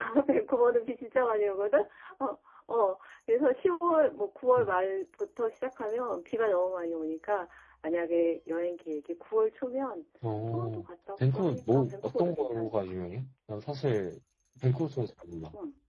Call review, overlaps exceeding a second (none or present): present